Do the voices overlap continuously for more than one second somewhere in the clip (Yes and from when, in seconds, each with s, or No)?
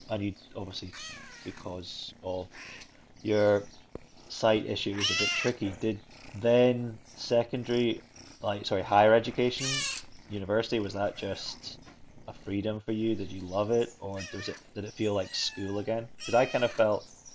No